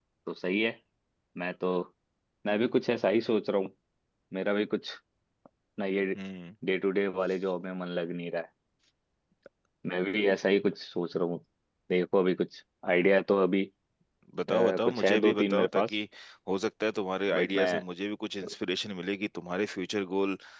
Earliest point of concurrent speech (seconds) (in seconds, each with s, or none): 14.5 s